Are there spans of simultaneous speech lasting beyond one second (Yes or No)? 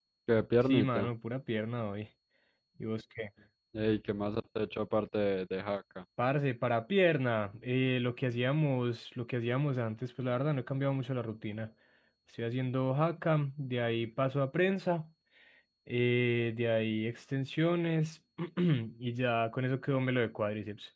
No